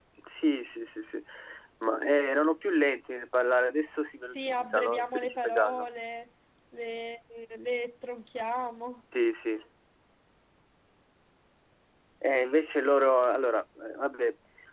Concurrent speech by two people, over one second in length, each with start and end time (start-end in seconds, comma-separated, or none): 4.3-5.8